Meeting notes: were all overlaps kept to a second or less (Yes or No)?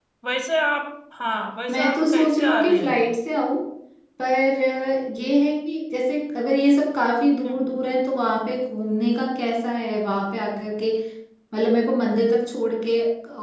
No